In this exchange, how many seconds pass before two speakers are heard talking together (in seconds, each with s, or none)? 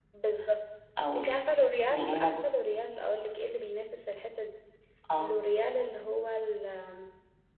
1.1 s